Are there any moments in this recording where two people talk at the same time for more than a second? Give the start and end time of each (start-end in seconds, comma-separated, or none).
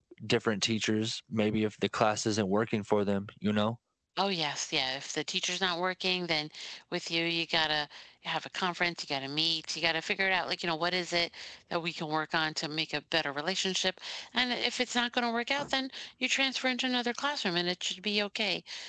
none